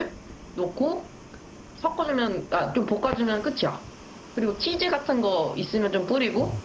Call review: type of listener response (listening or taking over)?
listening